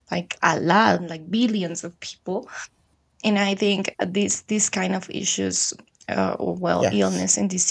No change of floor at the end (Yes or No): Yes